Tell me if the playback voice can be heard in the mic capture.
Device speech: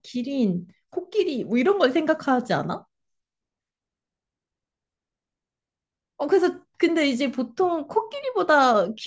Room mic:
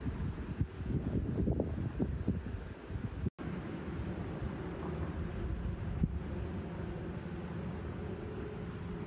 No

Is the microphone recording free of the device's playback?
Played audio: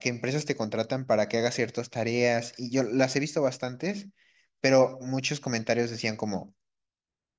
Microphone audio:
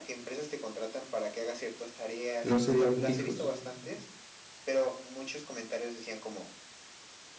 No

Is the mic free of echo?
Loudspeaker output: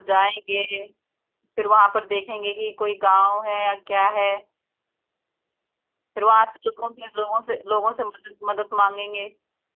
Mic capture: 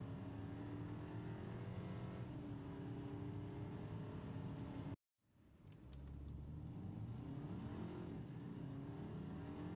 Yes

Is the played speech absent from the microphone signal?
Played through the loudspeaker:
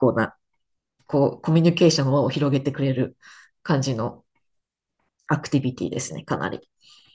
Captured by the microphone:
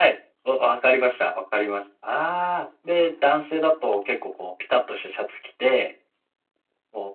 Yes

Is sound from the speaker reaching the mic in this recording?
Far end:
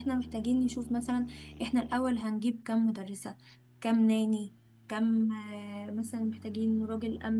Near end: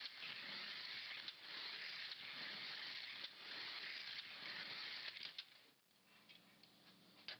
No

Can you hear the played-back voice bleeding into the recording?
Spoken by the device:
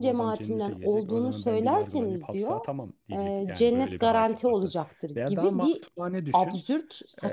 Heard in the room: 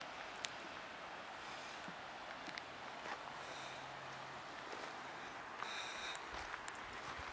No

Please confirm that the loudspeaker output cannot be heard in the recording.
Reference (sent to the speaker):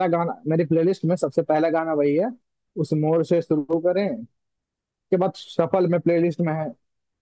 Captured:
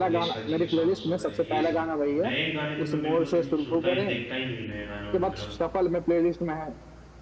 No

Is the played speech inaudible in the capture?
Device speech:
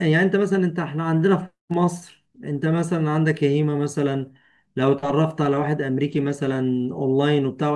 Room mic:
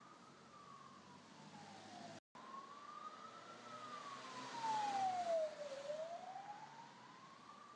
Yes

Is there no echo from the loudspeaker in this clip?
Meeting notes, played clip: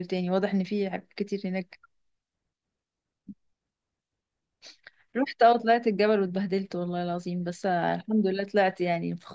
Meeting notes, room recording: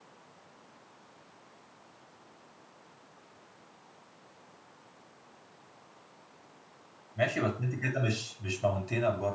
Yes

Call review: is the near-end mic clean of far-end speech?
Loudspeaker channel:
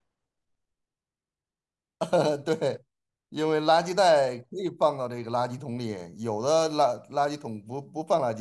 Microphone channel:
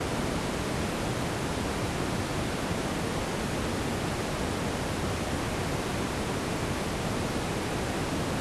Yes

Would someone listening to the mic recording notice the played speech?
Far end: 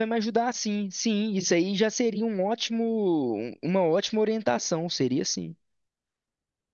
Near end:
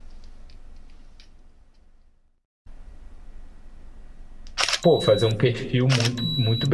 No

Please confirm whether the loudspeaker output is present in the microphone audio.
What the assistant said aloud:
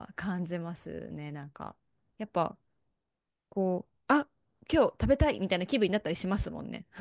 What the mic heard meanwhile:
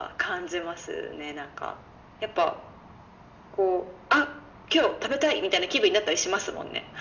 Yes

